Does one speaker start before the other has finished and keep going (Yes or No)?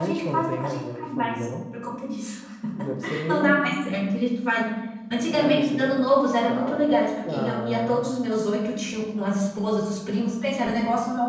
Yes